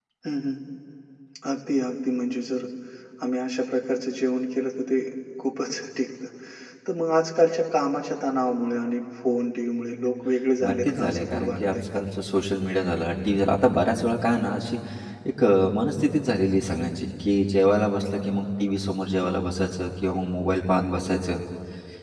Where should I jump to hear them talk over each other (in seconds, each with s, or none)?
10.6 s